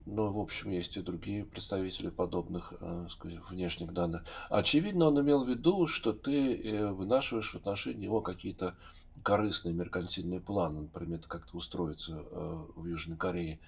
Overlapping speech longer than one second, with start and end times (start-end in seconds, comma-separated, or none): none